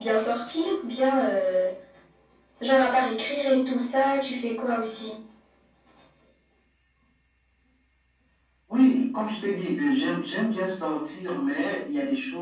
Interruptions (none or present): none